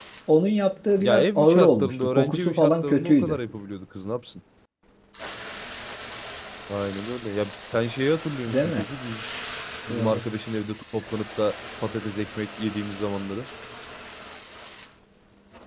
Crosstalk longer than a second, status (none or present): present